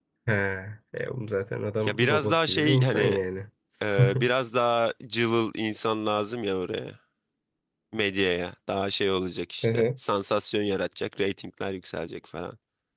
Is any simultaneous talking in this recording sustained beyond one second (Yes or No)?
Yes